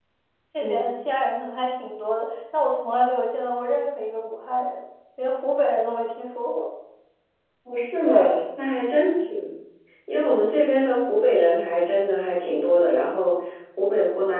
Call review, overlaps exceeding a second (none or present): none